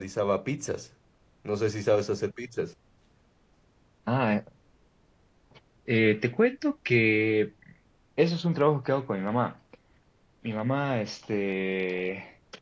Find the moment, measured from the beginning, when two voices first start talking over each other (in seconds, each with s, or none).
none